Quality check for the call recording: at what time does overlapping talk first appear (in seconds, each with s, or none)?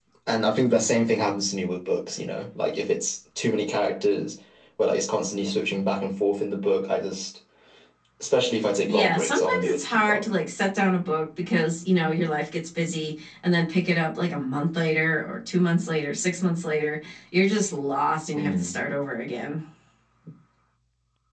8.9 s